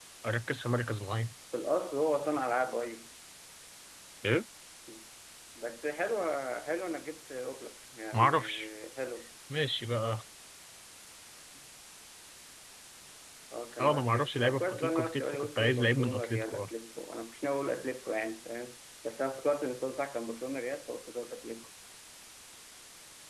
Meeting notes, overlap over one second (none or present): present